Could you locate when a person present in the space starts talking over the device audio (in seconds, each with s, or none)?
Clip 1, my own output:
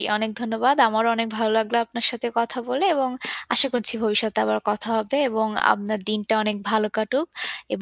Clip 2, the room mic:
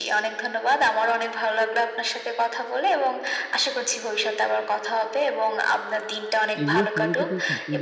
6.6 s